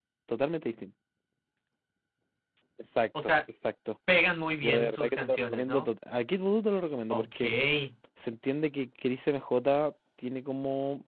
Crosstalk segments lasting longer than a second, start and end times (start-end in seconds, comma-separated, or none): 4.6-5.9